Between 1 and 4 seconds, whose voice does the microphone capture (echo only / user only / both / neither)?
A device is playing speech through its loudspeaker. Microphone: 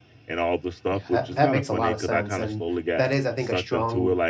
both